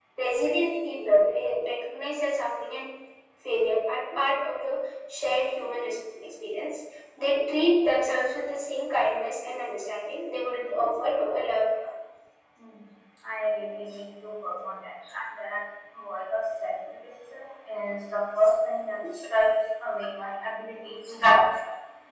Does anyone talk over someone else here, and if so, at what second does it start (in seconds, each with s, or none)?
none